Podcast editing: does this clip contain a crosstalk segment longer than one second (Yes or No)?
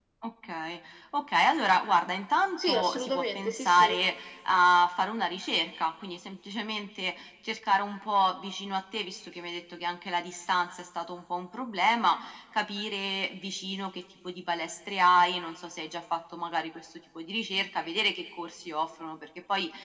Yes